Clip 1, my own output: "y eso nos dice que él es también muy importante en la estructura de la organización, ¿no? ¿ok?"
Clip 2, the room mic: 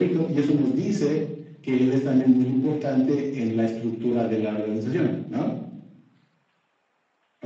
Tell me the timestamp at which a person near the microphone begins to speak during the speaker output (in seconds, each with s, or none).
none